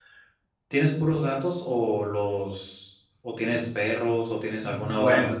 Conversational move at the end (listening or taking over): listening